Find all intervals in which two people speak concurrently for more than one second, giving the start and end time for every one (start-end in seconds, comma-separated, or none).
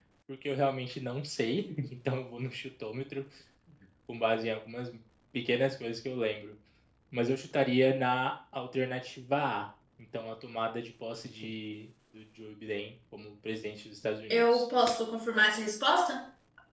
none